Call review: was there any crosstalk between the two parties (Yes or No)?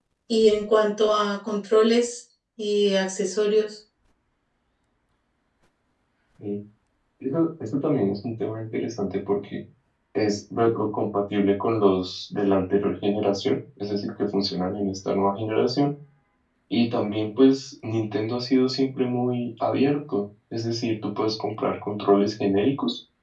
No